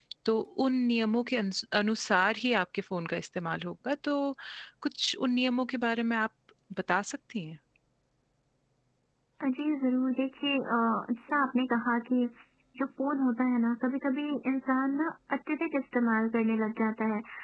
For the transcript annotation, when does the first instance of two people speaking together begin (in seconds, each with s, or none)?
none